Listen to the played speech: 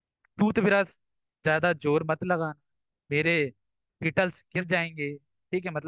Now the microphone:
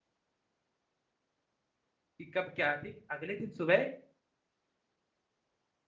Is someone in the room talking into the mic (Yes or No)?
Yes